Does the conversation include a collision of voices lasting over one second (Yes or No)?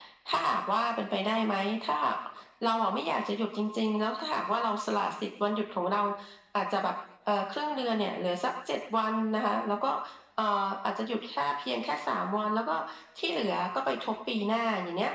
No